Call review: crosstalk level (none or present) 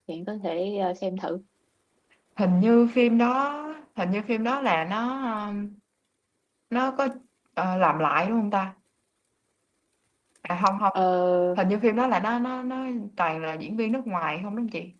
none